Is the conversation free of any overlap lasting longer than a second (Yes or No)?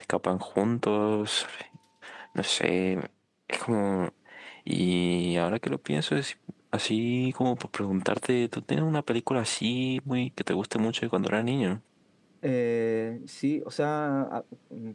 Yes